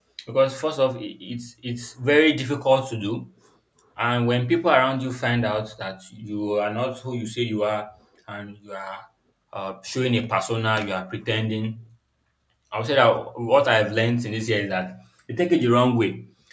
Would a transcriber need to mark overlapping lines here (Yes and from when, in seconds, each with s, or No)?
No